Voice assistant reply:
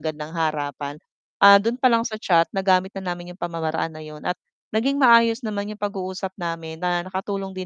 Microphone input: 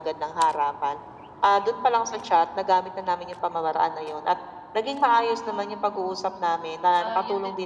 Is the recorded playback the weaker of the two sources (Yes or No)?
No